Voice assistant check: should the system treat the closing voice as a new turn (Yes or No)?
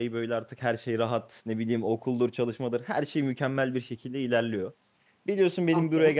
No